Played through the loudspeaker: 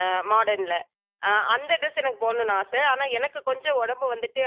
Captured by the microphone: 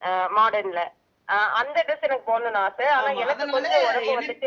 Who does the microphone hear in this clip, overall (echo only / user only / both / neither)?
both